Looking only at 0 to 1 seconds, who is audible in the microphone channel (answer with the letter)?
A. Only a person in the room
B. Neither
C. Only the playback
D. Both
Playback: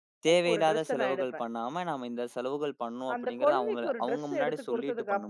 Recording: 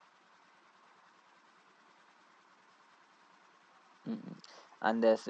B